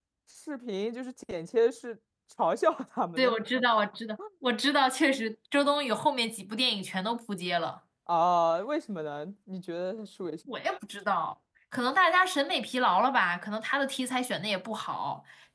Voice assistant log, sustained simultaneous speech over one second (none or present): none